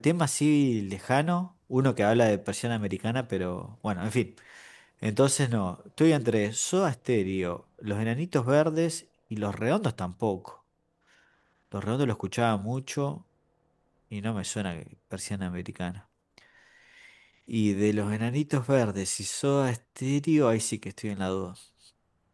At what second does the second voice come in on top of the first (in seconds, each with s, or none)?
none